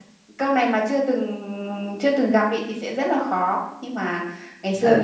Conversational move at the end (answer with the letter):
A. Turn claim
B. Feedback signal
B